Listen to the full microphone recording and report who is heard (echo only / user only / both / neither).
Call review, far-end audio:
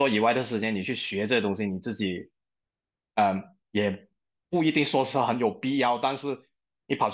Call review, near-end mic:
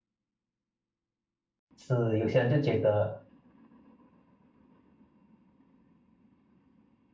user only